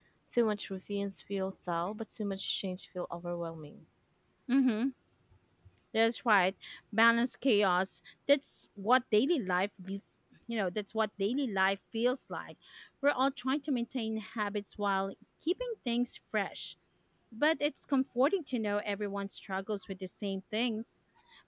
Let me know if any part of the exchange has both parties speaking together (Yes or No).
No